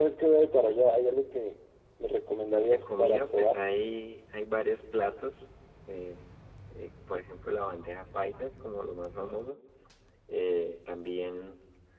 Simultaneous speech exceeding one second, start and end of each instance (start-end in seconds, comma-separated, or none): 2.4-3.6